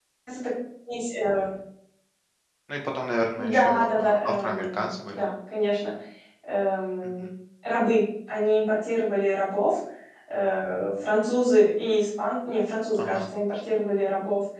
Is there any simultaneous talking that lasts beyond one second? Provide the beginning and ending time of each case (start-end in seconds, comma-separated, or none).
3.4-5.2